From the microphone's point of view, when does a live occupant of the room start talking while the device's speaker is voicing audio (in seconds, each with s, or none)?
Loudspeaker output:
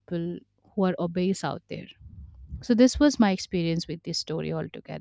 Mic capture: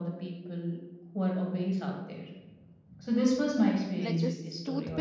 3.9 s